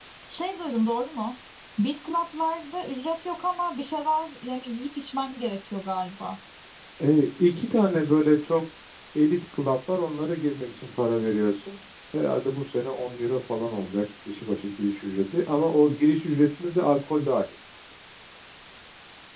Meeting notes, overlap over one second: none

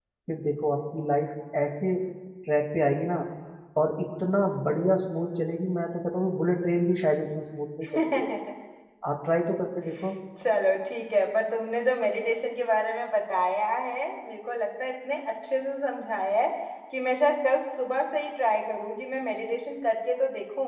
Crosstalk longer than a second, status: none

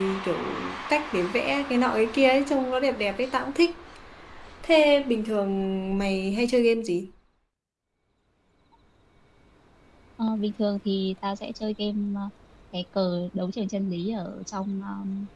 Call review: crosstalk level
none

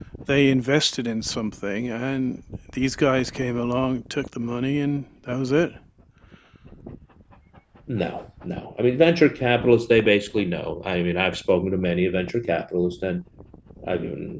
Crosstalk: none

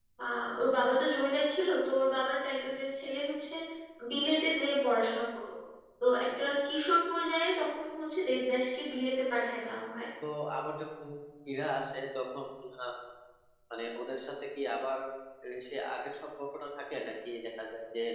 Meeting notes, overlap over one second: none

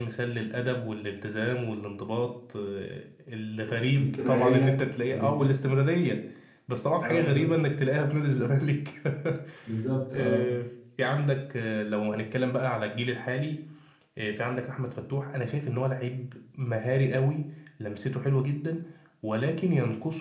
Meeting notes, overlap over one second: present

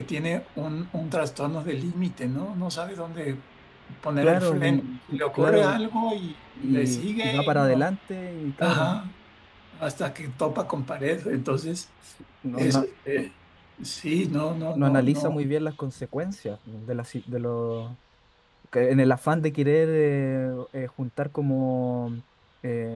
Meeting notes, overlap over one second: present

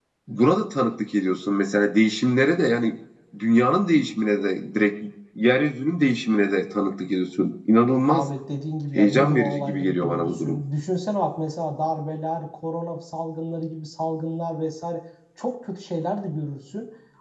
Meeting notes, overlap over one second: present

